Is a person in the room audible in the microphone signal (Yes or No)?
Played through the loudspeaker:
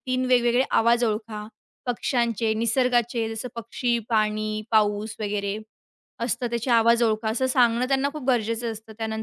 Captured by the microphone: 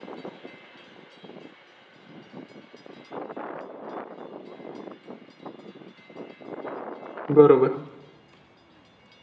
Yes